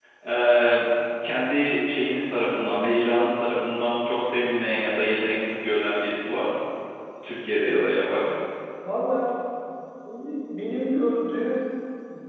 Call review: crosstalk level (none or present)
none